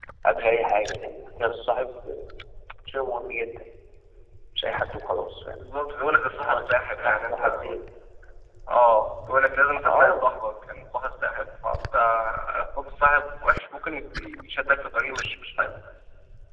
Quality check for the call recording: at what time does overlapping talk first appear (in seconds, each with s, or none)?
6.3 s